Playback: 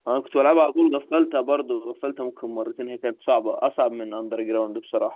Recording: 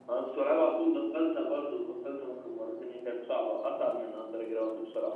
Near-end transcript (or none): none